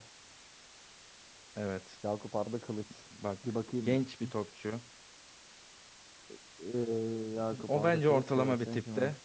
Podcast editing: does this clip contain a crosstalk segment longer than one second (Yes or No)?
Yes